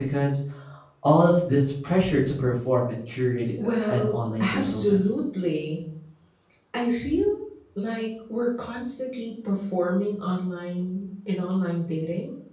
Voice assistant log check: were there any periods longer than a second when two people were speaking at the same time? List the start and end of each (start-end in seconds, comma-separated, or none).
3.6-5.0